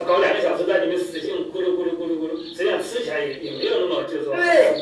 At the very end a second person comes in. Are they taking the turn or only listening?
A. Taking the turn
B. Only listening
A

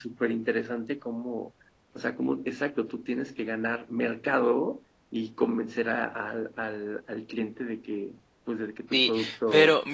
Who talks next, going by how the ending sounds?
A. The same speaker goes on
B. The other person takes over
B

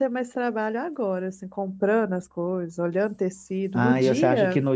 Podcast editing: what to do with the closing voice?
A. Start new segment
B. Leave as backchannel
A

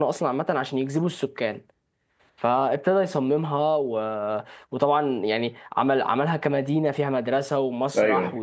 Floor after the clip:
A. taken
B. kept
B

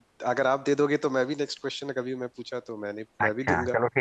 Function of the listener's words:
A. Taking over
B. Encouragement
A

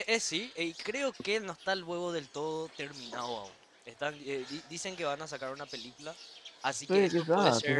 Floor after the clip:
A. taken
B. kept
A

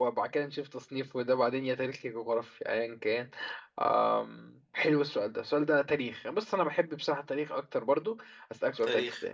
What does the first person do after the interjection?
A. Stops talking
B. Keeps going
B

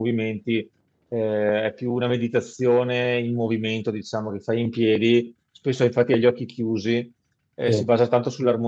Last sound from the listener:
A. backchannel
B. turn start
A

